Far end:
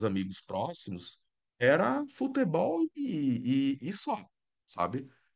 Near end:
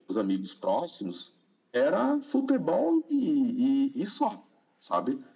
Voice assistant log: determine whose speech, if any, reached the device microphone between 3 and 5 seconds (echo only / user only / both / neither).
echo only